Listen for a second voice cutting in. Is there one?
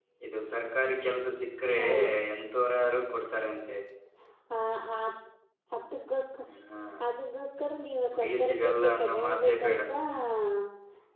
Yes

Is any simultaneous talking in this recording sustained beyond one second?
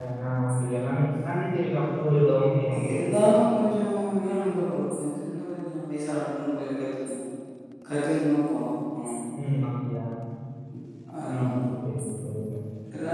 No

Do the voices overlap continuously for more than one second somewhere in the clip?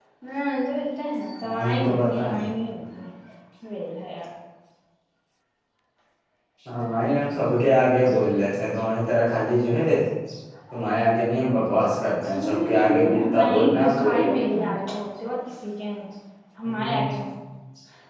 Yes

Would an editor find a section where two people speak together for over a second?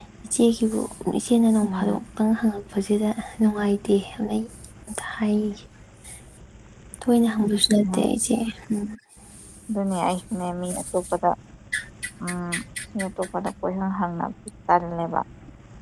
No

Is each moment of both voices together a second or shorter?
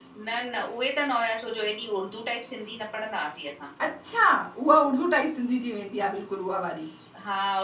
Yes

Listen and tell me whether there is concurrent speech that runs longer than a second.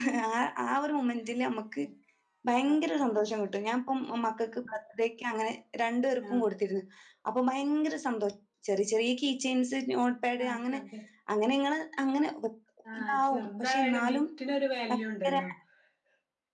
Yes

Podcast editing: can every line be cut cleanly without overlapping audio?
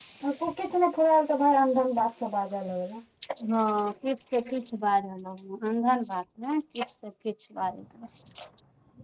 Yes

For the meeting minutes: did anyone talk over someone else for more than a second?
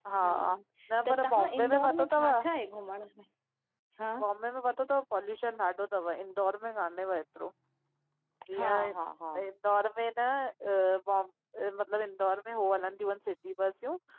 Yes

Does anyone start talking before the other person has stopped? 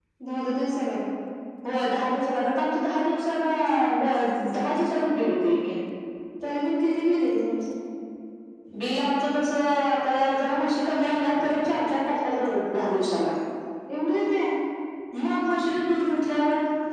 No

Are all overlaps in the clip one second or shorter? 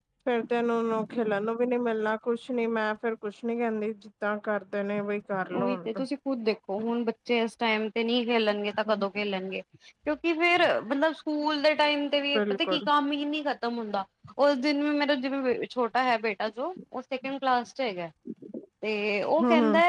Yes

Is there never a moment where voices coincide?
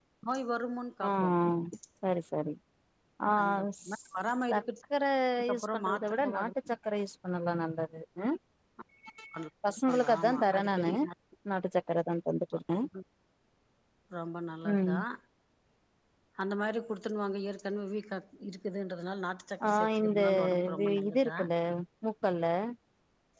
No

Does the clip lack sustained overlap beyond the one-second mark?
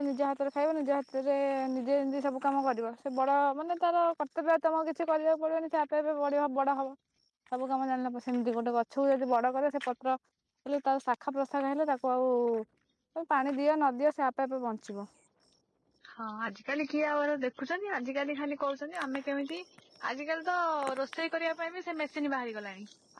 Yes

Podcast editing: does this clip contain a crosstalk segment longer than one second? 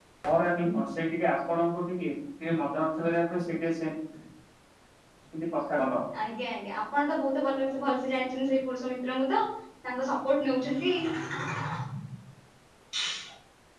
No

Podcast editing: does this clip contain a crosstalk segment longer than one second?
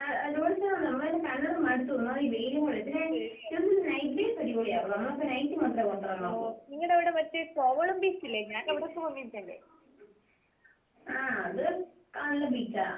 No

